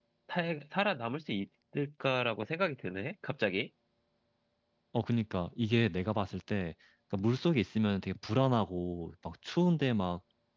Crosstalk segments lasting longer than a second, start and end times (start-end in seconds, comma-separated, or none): none